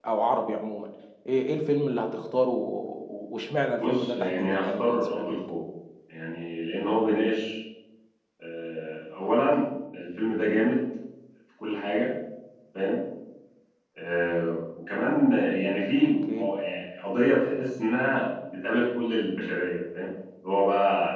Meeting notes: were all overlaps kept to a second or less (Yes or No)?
No